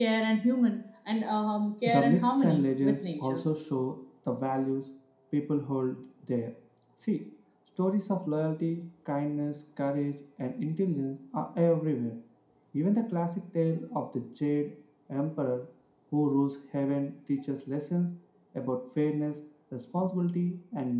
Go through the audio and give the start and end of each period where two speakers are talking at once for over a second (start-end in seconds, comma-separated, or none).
1.9-3.4